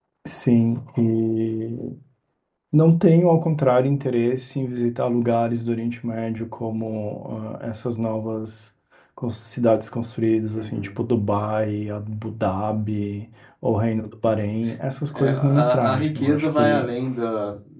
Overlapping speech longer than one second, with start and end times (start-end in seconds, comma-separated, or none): 15.1-16.9